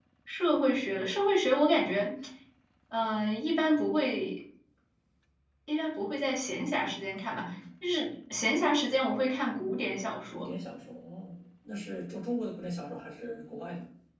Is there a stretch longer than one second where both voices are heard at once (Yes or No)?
No